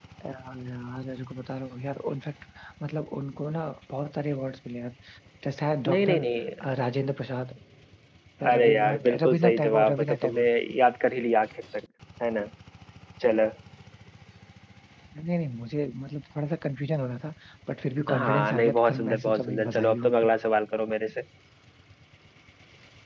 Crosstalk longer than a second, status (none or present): present